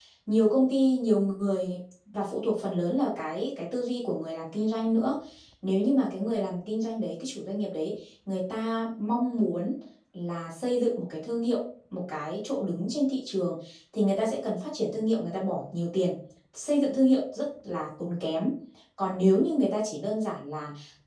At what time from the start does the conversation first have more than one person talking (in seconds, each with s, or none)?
none